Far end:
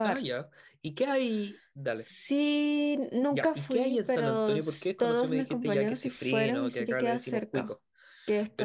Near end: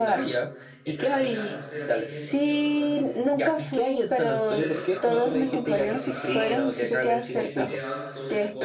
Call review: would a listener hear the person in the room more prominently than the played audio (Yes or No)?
No